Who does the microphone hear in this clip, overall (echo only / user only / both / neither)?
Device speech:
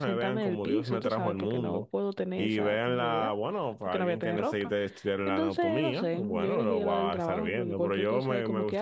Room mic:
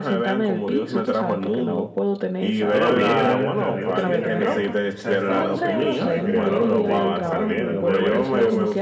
both